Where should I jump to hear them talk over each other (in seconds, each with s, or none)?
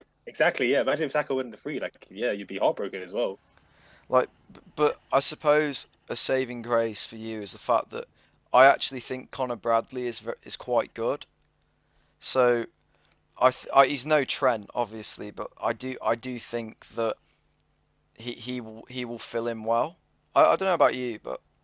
none